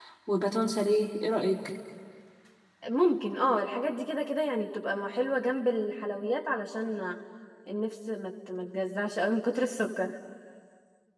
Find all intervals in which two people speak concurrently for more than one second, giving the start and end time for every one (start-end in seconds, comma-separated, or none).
none